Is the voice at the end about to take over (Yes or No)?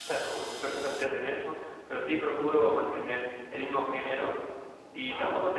No